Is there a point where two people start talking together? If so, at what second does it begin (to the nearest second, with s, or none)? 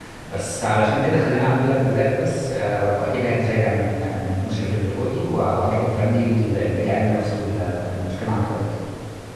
none